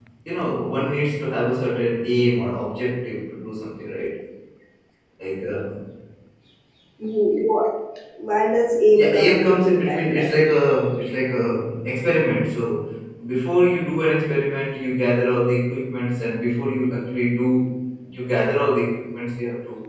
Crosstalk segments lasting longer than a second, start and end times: 9.0-10.4

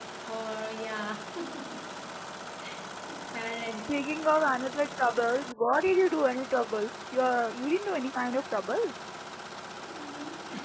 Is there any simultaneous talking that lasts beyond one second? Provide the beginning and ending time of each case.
none

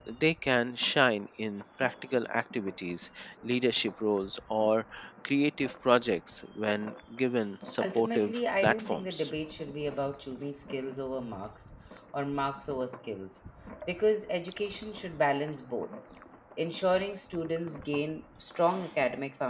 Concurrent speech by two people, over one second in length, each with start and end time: 7.8-9.3

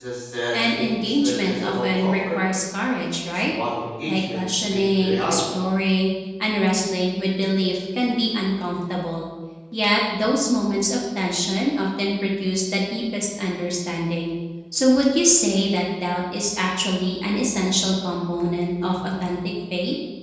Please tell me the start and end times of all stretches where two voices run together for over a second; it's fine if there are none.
0.5-2.4, 4.1-5.6

